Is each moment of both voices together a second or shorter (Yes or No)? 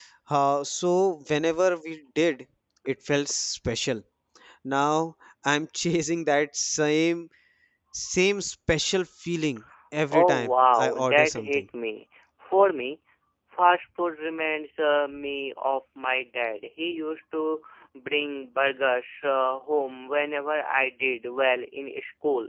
No